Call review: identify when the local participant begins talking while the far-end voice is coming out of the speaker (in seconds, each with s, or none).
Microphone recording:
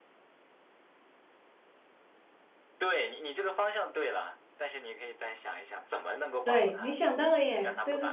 6.4 s